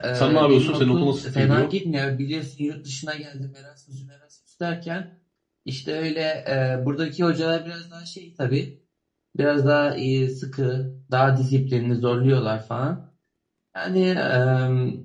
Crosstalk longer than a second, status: present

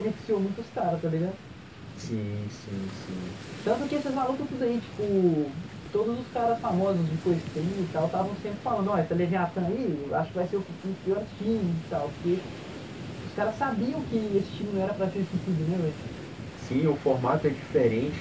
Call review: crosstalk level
none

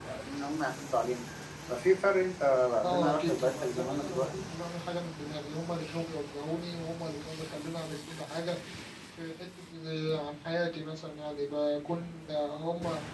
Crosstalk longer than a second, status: present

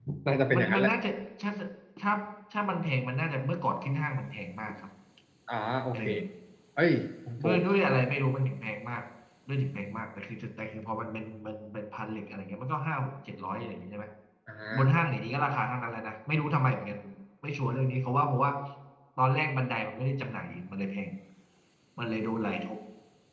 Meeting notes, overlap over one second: none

